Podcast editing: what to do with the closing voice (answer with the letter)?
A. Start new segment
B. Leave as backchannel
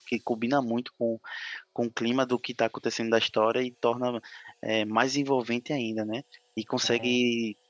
B